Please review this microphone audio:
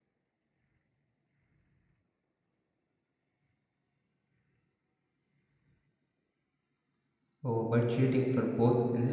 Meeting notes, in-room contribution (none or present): present